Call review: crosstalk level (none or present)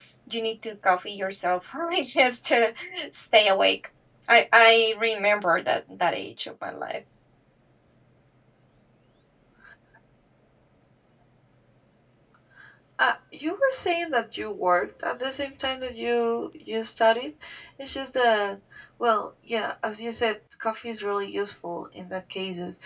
none